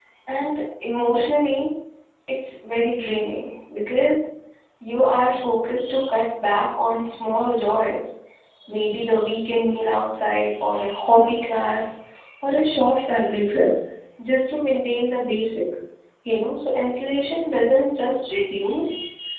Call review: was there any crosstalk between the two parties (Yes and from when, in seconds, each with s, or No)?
No